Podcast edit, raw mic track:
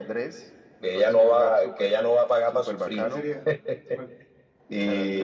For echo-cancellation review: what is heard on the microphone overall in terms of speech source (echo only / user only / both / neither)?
both